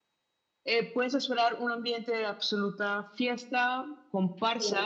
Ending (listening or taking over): listening